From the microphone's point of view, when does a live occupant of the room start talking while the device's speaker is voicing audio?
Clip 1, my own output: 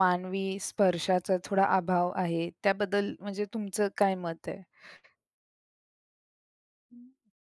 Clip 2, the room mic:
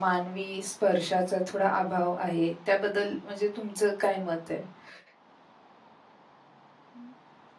none

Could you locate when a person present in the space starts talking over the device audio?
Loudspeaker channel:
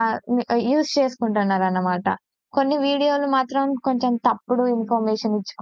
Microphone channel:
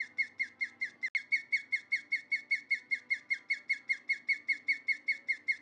none

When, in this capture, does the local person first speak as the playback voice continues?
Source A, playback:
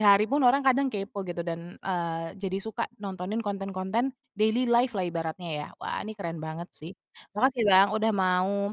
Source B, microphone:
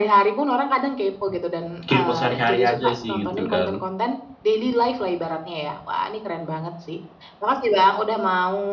2 s

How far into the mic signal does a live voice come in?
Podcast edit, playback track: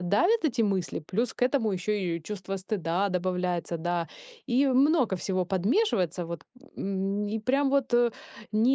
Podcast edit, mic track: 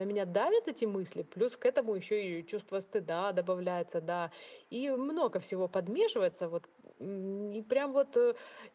none

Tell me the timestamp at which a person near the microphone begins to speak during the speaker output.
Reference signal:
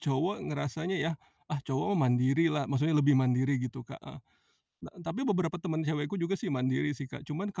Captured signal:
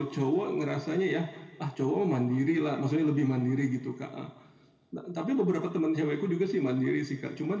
none

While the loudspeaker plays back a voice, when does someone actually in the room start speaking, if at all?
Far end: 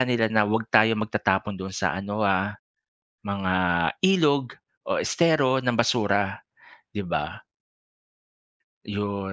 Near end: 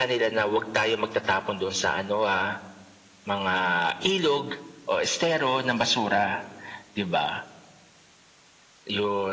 none

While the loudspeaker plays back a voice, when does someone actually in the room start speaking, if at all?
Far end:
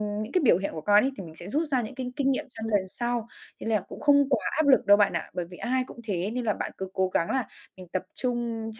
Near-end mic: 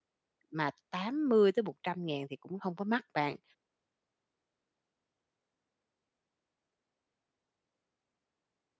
1 s

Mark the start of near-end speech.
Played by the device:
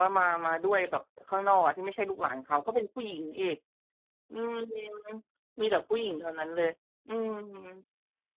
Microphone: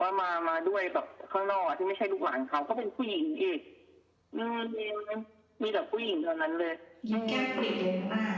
7 s

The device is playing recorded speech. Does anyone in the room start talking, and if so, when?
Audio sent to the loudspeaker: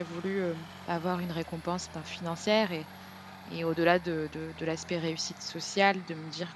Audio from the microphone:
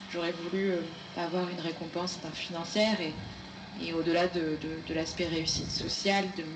none

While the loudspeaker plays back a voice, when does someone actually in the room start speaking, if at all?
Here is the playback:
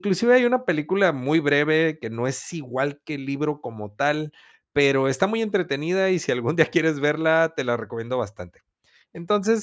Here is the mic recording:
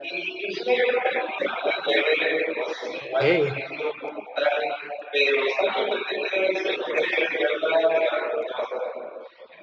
3 s

